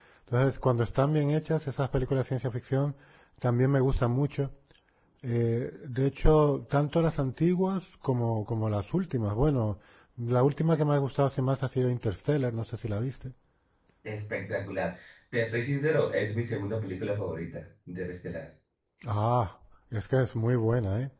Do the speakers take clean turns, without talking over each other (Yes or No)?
Yes